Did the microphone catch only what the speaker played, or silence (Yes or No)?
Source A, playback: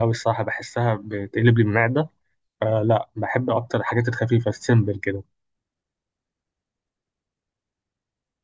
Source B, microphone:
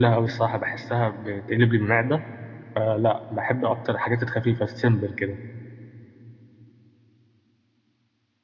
Yes